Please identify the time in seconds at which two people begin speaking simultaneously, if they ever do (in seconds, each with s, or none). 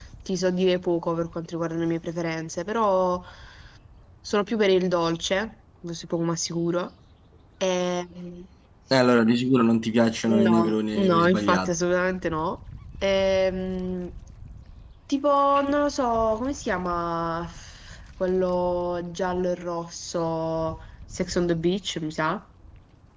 10.3 s